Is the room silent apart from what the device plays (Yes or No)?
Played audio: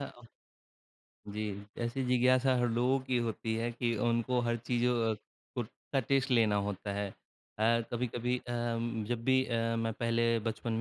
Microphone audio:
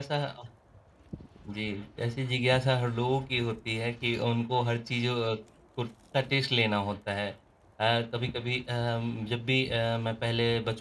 Yes